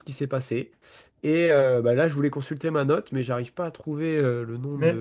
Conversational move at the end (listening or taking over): taking over